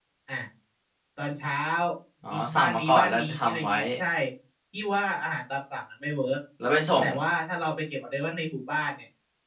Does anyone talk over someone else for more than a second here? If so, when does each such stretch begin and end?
2.3-3.8

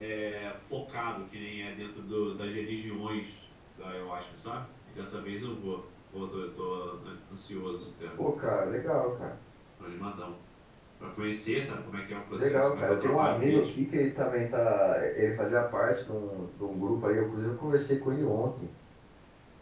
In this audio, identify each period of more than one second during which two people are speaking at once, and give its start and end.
12.3-13.8

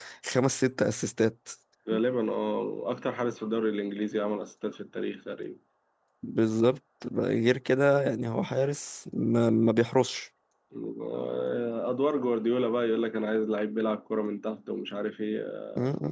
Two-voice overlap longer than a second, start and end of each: none

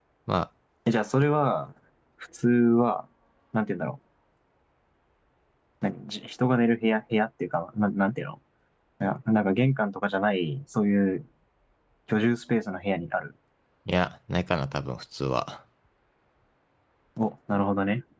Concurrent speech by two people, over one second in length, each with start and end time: none

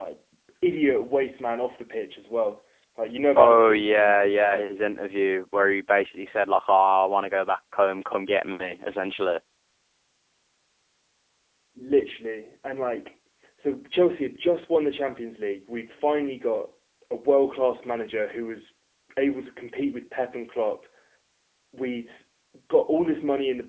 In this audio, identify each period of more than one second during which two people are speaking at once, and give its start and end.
3.4-4.7

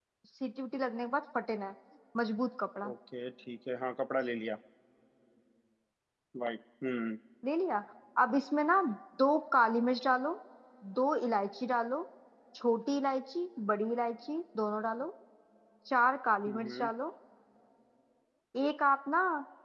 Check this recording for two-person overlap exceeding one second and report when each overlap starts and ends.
none

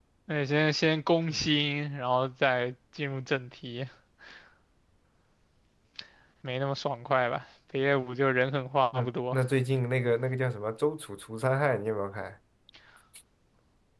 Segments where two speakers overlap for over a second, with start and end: none

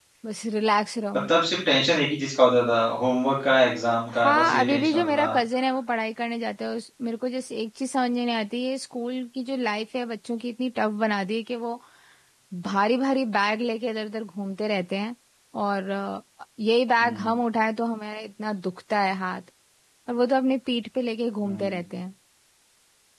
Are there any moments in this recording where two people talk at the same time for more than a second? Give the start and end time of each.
4.1-5.4

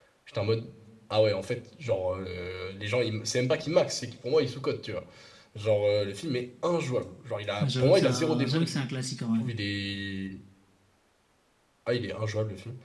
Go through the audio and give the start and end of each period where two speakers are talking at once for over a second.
7.6-8.8

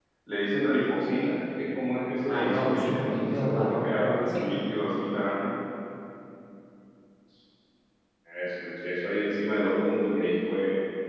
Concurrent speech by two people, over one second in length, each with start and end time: 2.2-4.4

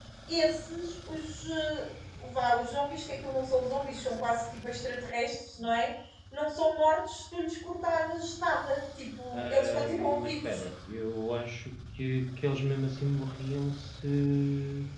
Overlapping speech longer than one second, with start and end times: 9.3-10.6

